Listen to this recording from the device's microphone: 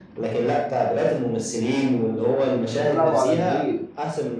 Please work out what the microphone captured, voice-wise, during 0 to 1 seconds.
echo only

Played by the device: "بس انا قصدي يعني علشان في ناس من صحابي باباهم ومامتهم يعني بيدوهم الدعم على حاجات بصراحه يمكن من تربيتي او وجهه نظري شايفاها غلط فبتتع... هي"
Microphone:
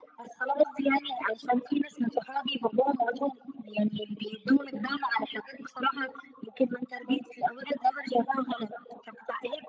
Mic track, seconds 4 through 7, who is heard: echo only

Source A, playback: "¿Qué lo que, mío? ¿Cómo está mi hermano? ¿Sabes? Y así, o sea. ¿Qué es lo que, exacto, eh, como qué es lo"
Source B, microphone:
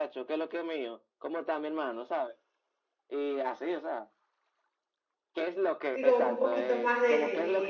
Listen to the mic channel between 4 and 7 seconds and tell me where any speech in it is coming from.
both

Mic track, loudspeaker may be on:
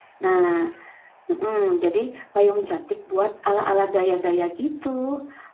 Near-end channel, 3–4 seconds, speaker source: user only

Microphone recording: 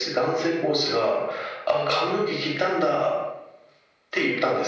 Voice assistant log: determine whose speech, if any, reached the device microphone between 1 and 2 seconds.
echo only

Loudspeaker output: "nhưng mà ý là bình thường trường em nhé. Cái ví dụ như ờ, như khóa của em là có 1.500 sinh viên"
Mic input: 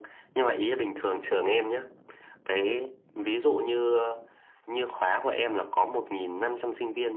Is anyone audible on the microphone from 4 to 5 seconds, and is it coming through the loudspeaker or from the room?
echo only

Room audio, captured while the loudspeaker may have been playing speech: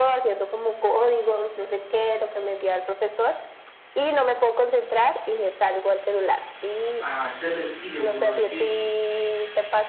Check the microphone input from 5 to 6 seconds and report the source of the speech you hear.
echo only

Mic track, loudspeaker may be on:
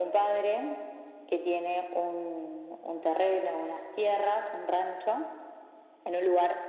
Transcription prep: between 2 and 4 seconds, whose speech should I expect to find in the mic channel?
echo only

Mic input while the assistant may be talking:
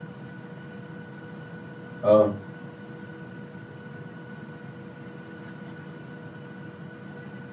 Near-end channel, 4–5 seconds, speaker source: neither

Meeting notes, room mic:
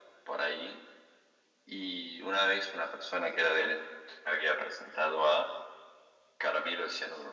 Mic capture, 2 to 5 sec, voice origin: echo only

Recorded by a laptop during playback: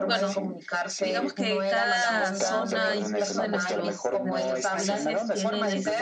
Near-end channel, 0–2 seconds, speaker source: both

